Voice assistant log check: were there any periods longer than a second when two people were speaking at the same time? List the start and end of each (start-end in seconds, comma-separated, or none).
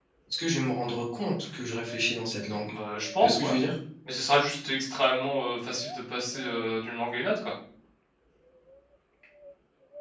none